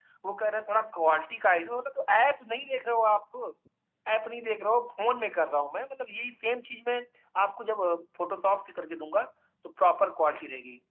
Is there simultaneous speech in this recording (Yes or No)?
No